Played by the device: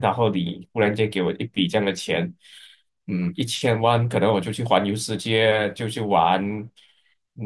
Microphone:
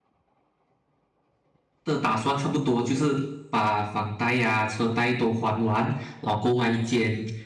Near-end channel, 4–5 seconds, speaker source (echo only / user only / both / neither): user only